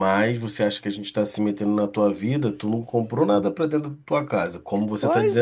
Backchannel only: No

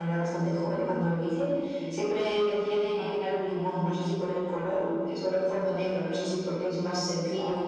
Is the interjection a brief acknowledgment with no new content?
Yes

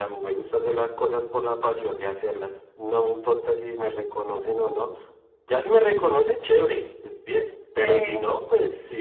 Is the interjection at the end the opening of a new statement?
No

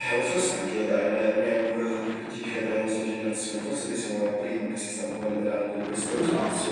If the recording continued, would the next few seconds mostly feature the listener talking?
Yes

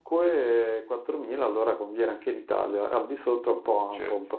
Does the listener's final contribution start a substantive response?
Yes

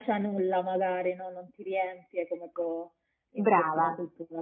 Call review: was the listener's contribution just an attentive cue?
Yes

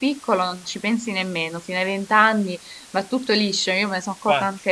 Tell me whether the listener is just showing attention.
Yes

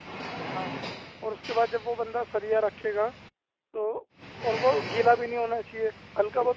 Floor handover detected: No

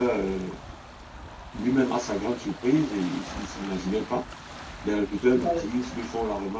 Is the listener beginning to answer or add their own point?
No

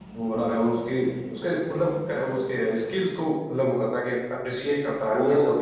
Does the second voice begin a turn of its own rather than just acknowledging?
Yes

